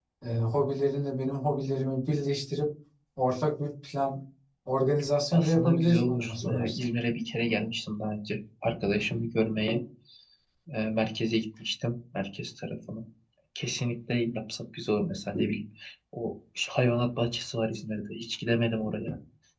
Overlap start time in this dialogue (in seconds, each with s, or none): 5.3 s